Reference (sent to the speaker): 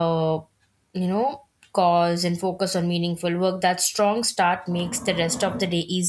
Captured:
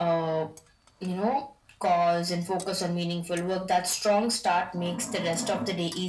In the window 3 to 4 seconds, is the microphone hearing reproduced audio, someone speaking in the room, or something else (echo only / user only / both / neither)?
echo only